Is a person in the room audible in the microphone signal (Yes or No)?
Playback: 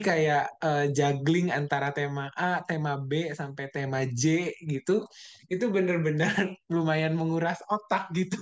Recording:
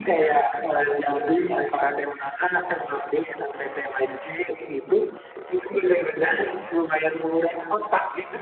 No